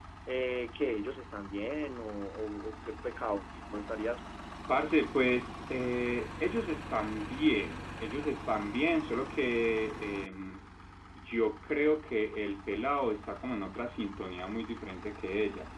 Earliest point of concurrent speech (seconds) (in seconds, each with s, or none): none